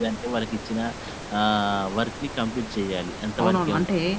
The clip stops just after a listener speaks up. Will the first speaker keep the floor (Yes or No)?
No